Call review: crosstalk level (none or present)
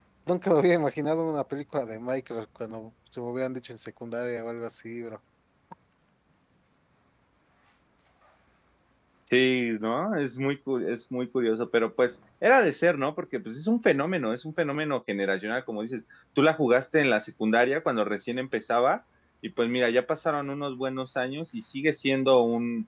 none